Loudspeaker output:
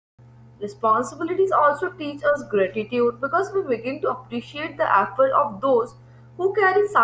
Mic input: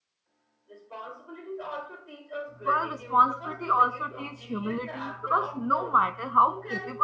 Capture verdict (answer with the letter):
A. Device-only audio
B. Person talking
B